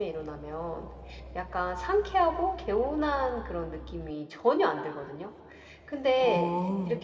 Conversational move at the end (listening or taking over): listening